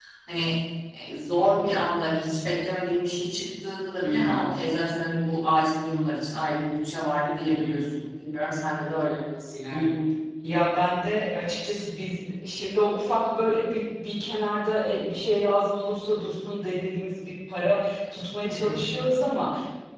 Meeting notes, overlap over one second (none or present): none